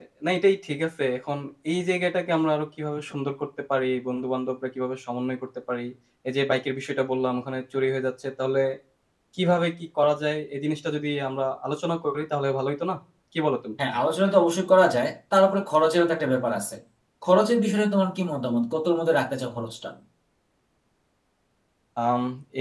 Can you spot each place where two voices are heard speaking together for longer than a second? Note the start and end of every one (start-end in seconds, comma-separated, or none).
none